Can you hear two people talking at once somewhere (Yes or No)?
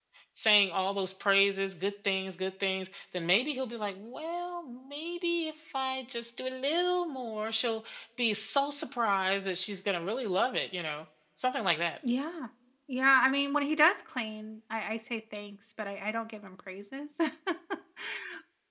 No